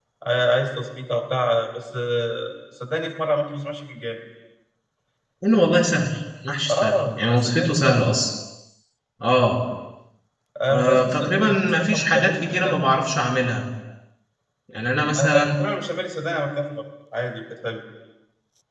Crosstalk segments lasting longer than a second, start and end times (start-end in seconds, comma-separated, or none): 6.7-8.0, 10.7-12.8